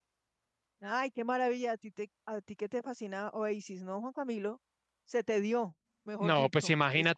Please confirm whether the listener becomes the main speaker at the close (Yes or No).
Yes